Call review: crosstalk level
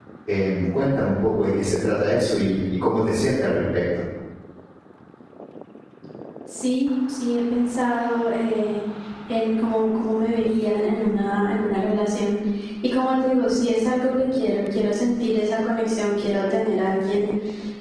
none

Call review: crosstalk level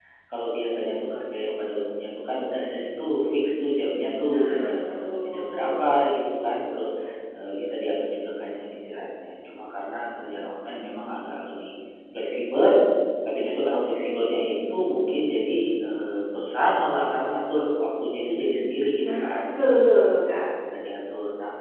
present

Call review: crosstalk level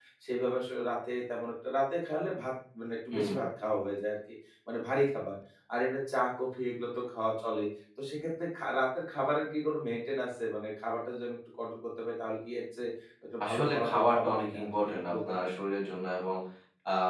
present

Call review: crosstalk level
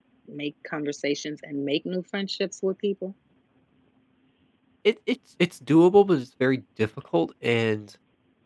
none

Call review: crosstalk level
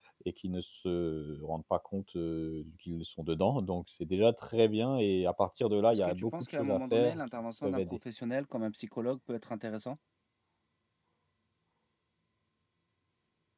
present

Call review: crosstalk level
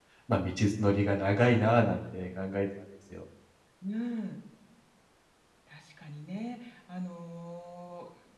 none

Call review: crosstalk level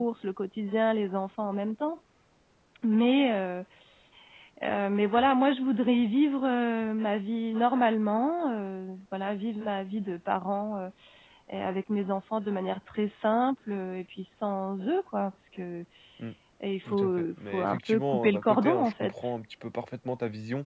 present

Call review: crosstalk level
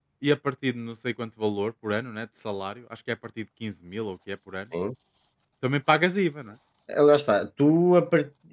none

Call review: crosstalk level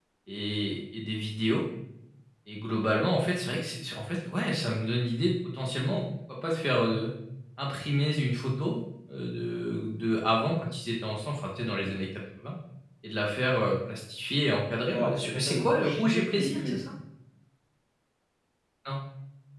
present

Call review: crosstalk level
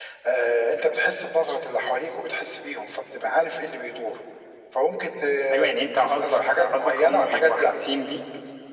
present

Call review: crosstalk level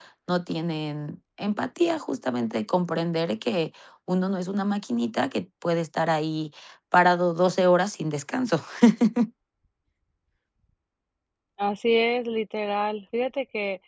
none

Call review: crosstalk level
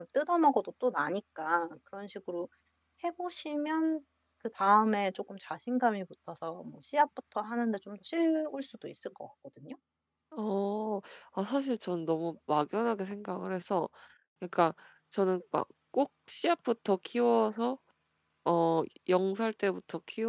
none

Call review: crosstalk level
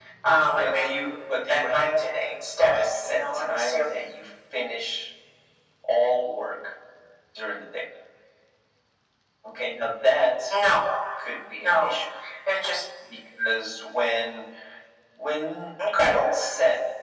present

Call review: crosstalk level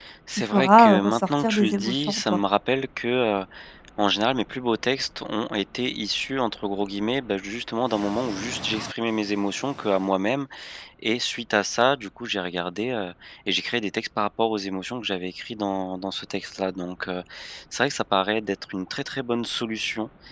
present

